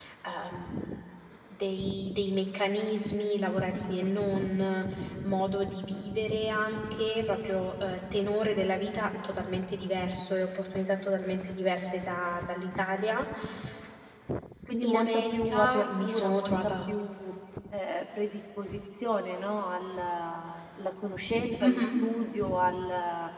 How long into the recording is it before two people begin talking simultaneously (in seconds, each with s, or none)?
14.9 s